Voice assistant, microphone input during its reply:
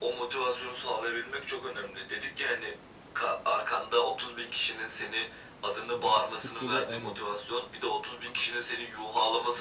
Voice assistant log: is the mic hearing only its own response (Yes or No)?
No